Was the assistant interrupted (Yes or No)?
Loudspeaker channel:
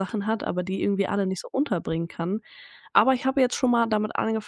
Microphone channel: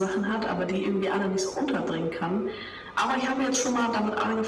No